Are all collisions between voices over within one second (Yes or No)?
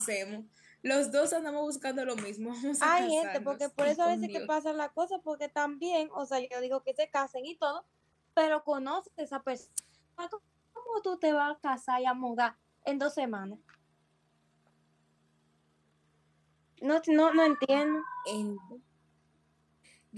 No